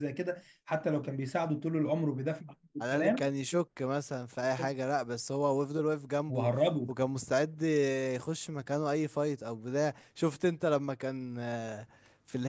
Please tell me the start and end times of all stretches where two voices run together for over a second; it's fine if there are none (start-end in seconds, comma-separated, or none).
none